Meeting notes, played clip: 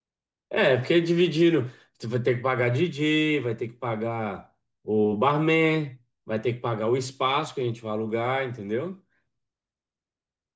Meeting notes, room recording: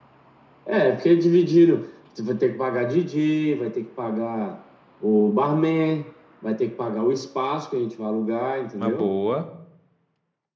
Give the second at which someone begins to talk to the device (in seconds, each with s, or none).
8.8 s